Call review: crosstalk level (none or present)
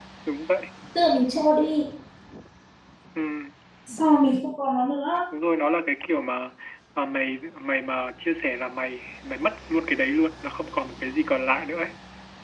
none